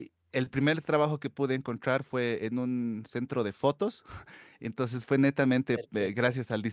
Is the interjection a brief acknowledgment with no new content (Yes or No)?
Yes